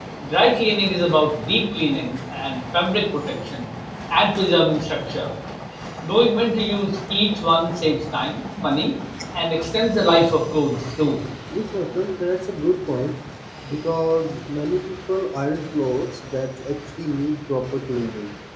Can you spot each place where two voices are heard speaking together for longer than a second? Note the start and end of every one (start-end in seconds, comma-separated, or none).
none